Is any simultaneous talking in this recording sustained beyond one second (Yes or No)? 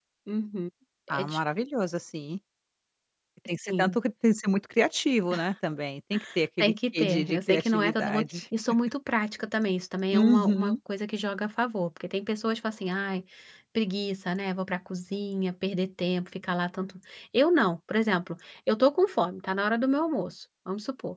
Yes